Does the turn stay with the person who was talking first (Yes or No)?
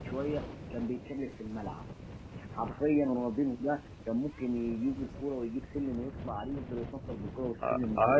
No